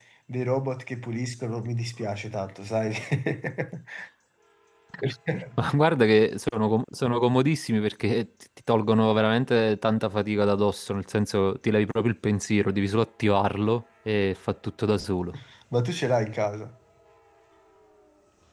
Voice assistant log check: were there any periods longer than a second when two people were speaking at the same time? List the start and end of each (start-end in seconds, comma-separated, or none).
none